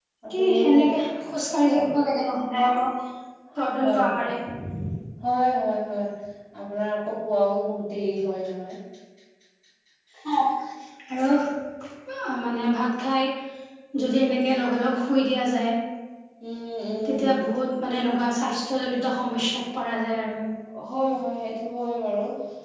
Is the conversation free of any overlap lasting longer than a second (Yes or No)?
Yes